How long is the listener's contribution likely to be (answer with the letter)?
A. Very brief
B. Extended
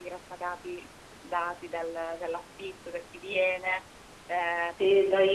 B